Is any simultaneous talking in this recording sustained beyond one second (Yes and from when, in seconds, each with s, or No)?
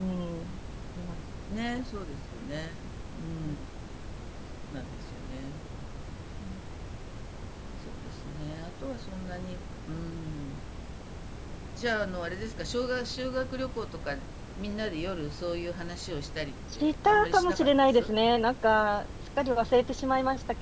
Yes, from 16.7 s